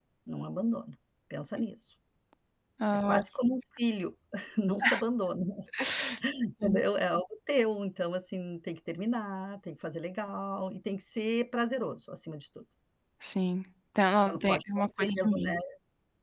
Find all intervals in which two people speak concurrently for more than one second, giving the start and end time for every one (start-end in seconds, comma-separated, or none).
14.3-15.5